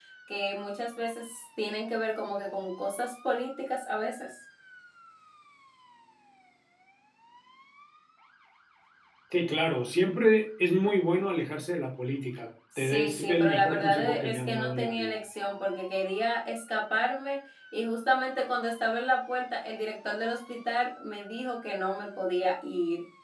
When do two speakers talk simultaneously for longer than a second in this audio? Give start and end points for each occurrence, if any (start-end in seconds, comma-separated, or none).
12.8-15.1